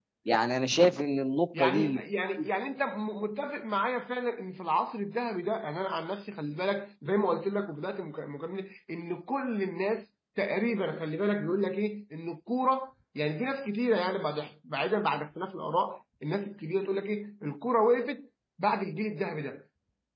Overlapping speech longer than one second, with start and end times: none

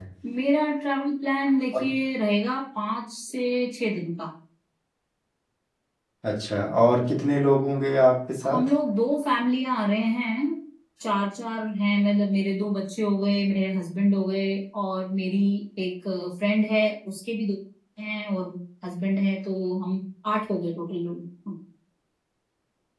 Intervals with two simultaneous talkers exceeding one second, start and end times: none

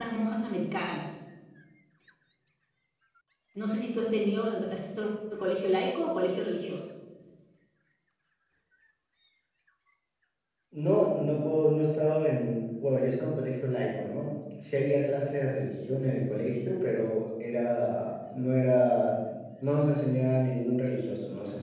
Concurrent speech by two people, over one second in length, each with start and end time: none

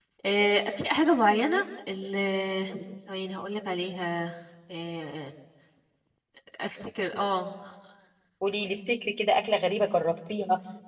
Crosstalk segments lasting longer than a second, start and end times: none

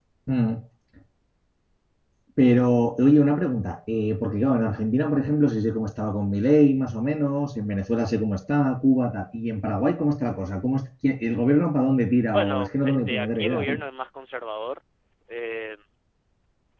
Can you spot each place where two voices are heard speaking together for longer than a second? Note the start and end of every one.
12.3-13.8

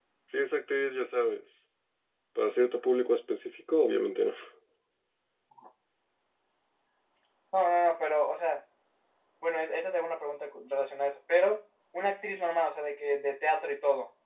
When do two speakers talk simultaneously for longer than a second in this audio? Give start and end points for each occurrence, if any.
none

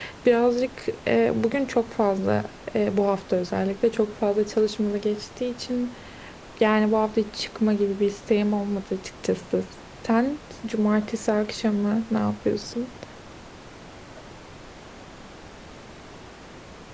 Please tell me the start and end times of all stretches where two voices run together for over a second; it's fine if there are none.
none

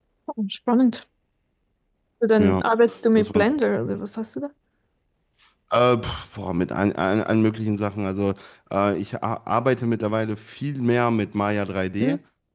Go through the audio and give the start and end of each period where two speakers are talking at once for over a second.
none

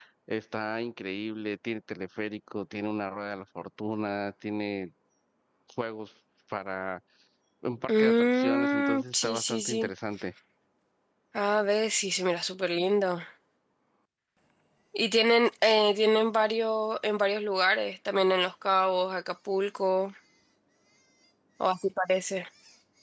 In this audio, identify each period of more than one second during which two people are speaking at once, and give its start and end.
7.9-9.9

